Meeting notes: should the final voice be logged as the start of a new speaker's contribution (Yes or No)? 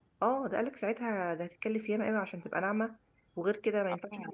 No